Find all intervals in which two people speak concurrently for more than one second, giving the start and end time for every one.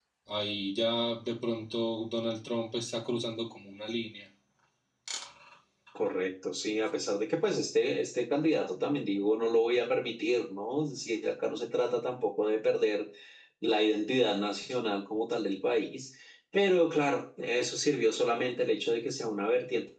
none

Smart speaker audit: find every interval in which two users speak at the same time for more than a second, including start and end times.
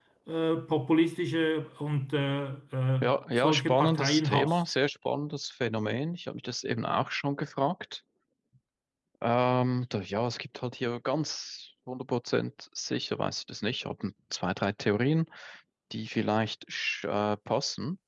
3.0-4.6

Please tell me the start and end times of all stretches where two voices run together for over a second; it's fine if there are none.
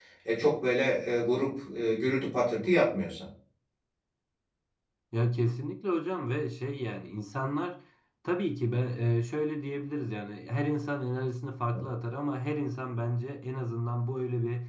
none

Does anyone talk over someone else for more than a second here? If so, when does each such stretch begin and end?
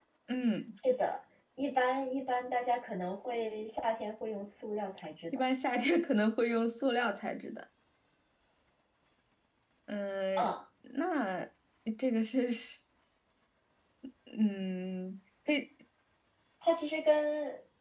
none

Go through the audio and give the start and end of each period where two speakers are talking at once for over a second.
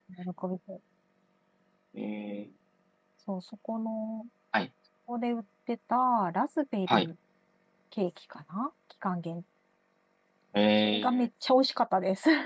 none

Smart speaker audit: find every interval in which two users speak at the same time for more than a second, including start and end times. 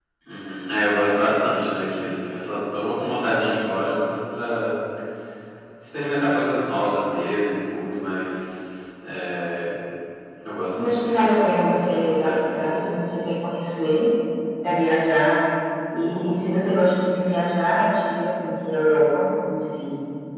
10.8-12.9

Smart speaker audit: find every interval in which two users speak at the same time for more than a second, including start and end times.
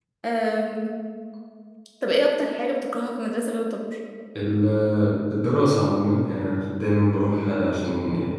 none

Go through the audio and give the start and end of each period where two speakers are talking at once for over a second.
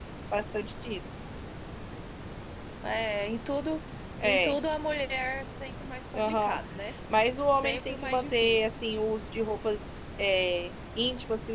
7.3-8.8

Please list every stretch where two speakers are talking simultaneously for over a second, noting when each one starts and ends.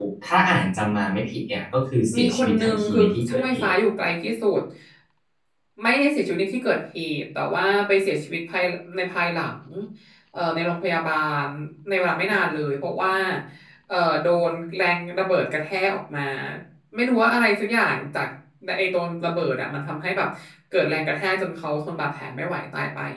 2.2-3.7

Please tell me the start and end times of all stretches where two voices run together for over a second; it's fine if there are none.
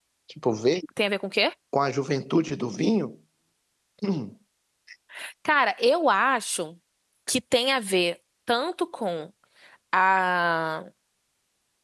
none

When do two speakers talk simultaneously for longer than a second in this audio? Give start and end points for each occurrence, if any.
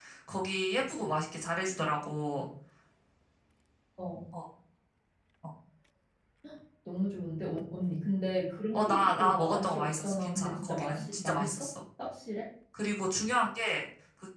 8.7-11.7

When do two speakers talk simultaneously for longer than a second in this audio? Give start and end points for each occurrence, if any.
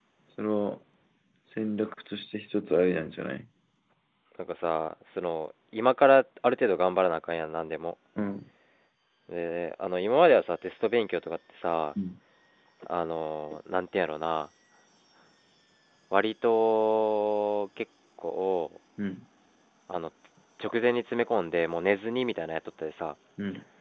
none

